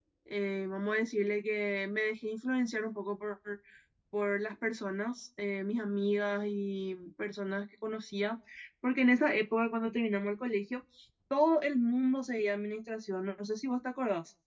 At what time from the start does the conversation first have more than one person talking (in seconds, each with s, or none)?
none